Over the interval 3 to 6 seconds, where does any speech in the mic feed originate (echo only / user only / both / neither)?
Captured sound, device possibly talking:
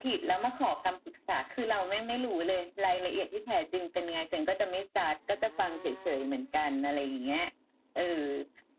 echo only